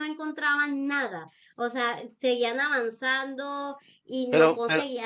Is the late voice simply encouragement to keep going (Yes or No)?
Yes